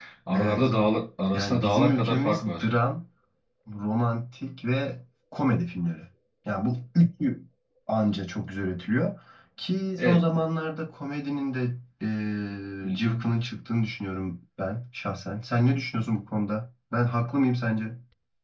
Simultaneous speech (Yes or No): Yes